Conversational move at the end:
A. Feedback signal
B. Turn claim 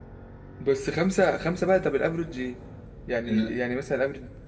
A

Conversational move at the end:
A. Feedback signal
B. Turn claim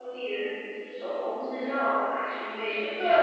B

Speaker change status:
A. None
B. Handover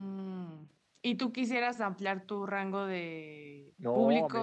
B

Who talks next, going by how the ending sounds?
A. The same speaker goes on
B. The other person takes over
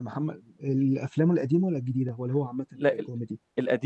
B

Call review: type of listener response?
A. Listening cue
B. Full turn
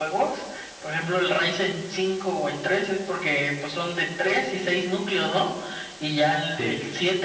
A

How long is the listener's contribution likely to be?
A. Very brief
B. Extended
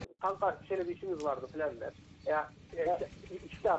A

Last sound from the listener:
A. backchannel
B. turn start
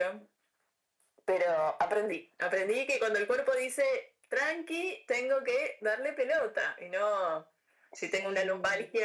A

